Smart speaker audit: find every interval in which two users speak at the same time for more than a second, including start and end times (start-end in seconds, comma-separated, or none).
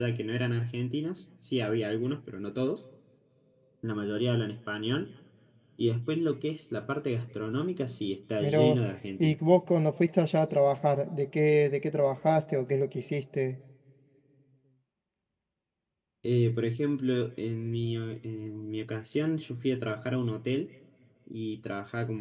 none